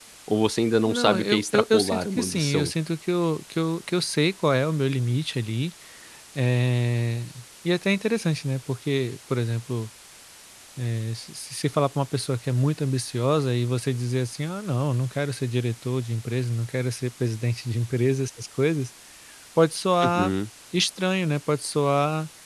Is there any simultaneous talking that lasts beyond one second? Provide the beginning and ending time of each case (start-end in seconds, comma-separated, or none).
0.8-2.7